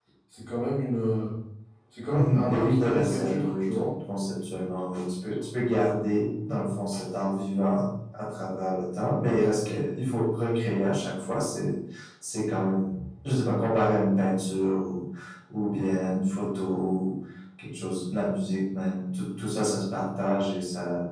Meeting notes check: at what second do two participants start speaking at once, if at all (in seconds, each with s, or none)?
2.1 s